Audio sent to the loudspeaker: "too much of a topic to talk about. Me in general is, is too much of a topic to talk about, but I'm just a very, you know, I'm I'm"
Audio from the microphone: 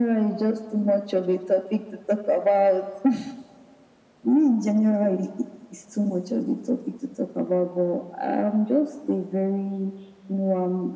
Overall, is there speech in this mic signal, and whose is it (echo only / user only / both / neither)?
echo only